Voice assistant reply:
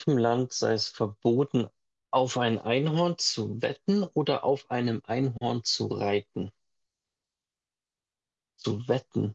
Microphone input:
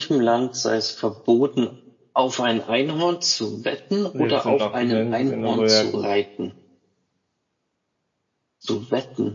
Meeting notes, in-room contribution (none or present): present